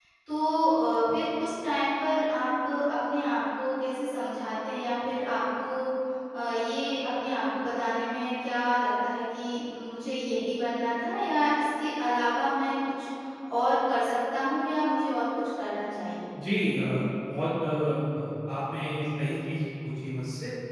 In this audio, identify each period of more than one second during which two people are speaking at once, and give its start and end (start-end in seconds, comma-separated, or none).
none